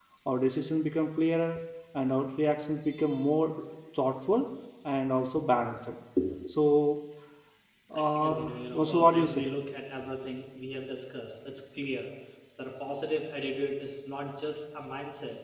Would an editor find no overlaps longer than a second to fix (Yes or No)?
No